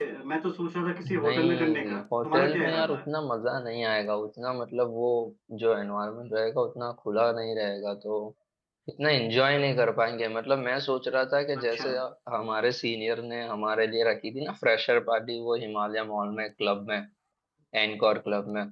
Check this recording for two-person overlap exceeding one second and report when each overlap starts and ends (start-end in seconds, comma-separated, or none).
1.1-3.0